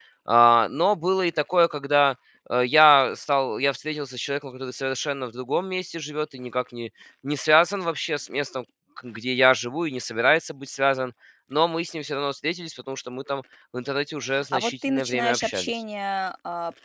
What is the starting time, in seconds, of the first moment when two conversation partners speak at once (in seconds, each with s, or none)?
14.3 s